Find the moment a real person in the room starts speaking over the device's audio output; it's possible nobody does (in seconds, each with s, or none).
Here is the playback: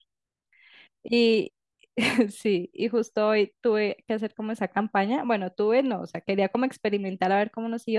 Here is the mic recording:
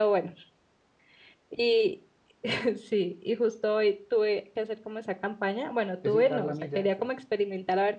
6.0 s